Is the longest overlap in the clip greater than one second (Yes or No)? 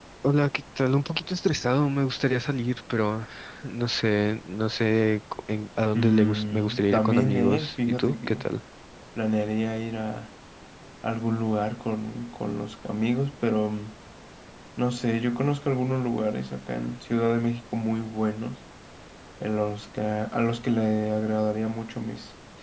Yes